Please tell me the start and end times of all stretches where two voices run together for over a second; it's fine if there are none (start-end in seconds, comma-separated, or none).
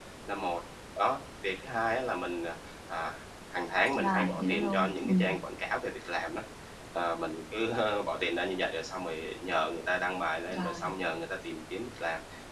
4.0-5.3